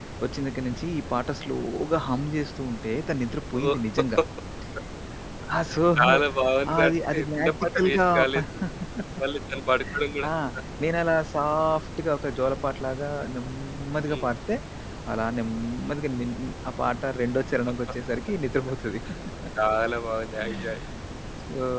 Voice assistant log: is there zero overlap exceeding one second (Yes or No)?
No